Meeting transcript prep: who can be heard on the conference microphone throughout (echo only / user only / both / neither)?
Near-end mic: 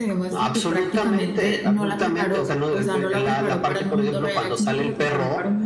both